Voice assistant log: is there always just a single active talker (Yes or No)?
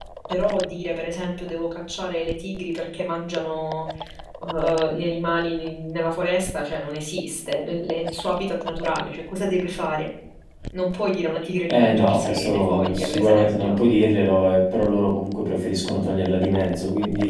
No